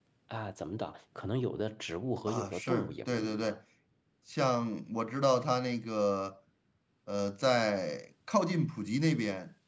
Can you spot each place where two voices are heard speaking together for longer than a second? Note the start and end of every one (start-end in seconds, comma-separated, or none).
2.3-3.6